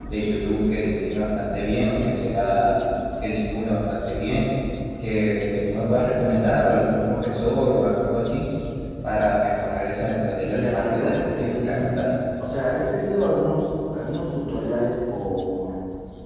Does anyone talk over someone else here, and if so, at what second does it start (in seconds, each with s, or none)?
10.5 s